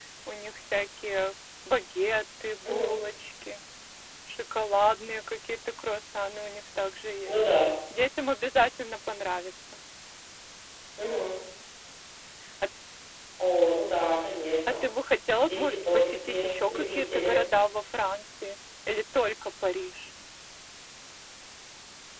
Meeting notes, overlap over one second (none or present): present